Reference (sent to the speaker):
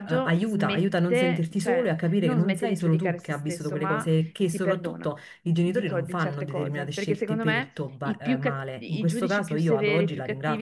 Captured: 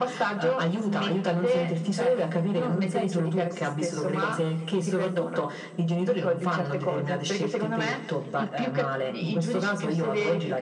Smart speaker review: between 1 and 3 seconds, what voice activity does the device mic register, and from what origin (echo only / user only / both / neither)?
echo only